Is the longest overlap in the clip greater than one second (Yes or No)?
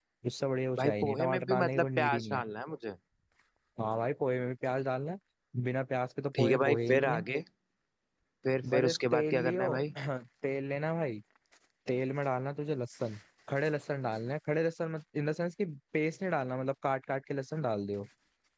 Yes